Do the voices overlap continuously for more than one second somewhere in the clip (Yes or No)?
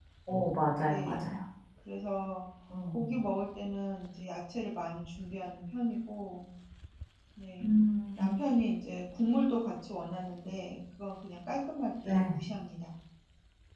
No